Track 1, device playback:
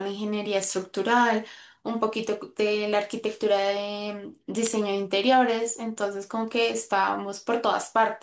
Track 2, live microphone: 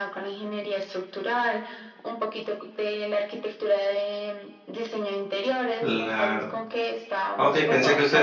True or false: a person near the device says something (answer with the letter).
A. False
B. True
B